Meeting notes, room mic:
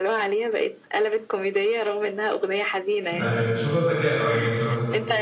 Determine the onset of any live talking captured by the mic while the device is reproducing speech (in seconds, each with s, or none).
3.0 s